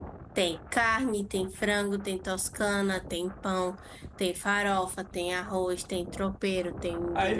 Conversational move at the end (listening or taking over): taking over